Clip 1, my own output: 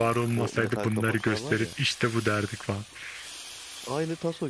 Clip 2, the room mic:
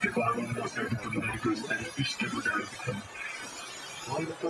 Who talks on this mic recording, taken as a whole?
echo only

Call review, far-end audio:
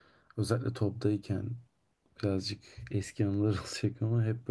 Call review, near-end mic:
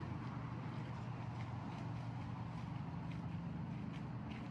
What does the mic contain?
neither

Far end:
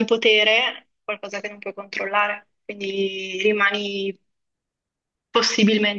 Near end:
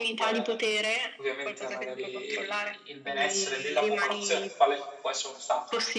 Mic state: both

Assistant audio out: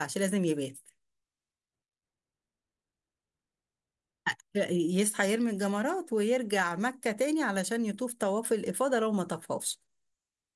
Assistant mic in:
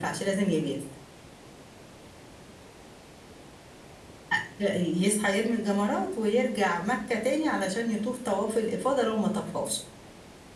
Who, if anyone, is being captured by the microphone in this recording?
echo only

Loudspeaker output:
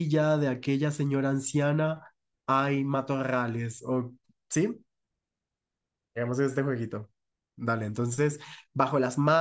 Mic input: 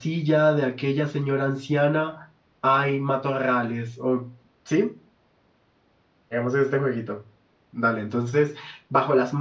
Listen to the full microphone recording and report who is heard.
echo only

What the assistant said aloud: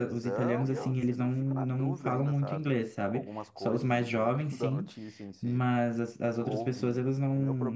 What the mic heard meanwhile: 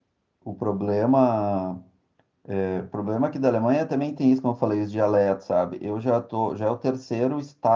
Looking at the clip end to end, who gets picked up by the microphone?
user only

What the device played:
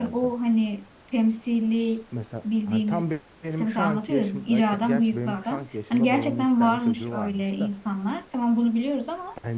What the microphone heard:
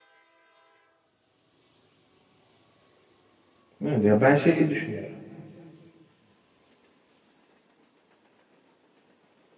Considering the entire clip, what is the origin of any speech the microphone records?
user only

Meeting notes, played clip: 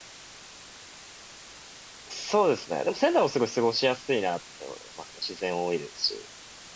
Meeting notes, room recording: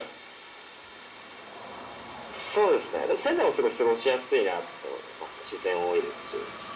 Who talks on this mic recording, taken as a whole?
echo only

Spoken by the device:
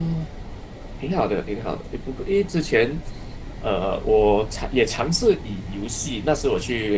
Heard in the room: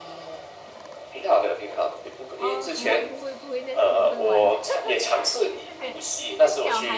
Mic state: both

